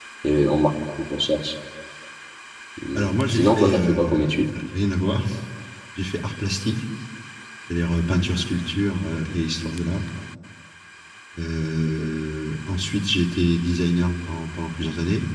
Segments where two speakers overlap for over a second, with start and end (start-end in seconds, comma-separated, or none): 3.0-4.3